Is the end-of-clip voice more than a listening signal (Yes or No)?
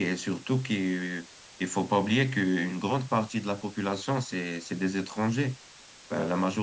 No